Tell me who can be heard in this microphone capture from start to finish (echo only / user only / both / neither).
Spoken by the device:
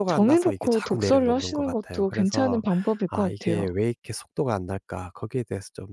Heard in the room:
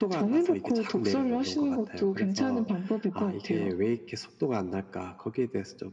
echo only